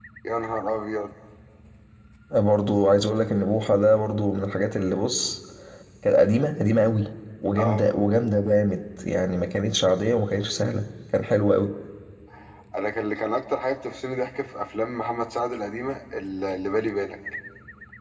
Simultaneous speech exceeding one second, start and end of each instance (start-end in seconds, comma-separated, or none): none